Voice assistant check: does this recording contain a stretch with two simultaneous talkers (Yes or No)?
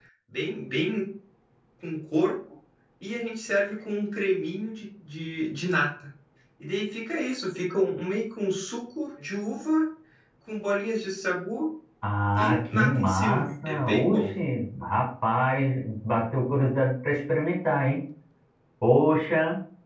Yes